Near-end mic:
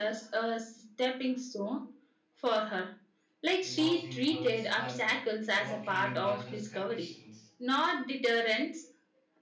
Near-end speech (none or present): present